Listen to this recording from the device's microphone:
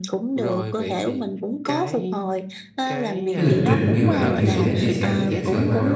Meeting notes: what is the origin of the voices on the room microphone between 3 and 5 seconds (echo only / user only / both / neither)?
both